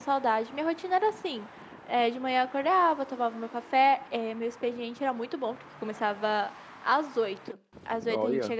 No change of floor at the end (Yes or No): Yes